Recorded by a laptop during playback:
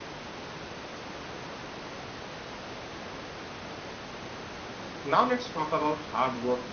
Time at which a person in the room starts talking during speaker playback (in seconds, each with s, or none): 5.0 s